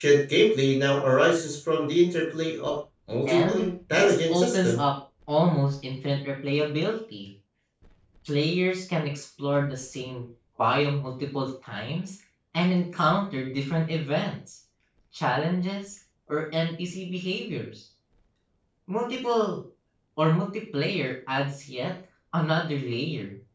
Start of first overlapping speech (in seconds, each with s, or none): 3.3 s